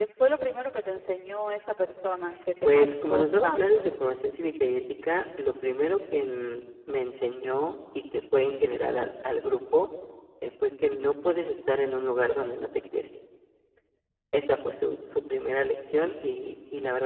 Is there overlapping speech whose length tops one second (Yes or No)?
Yes